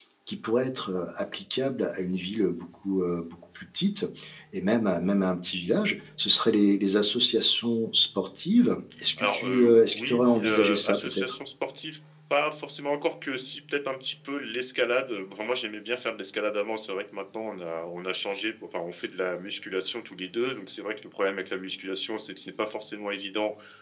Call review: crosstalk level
present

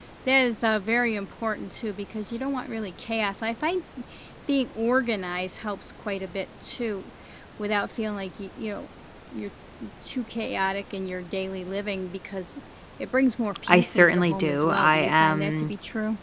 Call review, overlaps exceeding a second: present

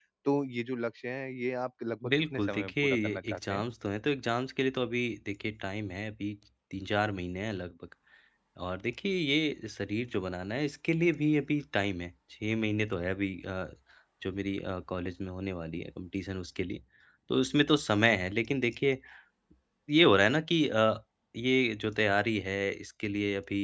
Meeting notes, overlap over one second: present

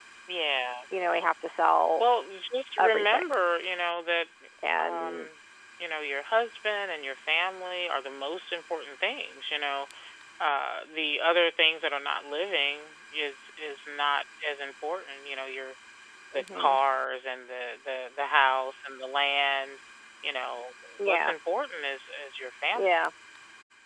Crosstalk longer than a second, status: none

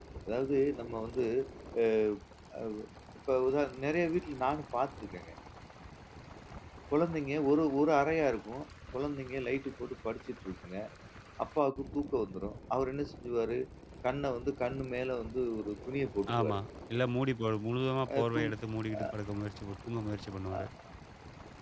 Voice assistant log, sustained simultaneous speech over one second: none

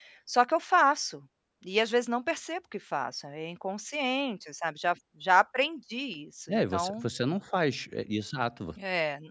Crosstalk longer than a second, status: none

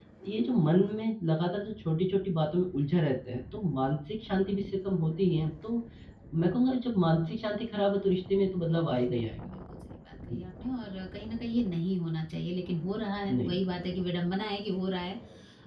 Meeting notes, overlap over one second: none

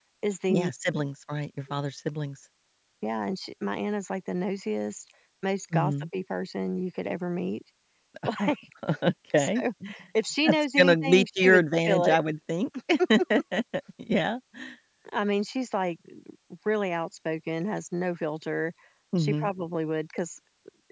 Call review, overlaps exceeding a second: present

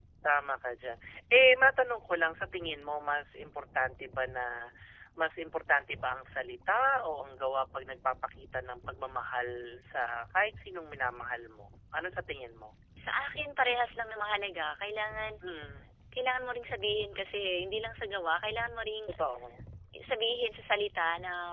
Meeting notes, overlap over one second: none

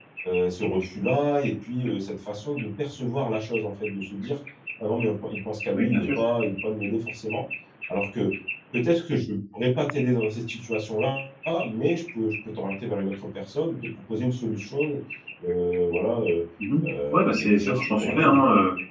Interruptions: present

